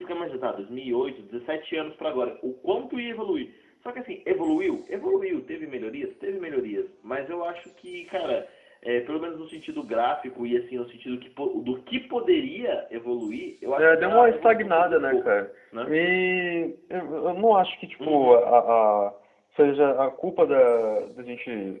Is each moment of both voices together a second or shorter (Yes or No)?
No